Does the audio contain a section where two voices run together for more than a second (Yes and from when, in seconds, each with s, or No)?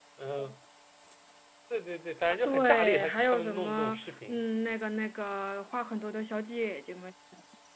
Yes, from 2.4 s